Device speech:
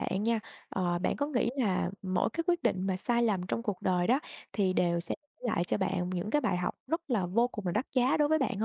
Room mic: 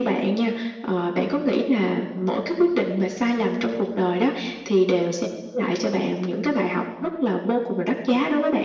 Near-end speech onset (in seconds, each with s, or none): none